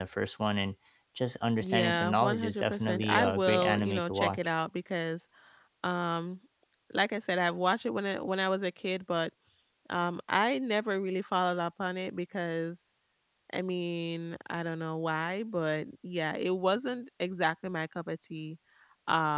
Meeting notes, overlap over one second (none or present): present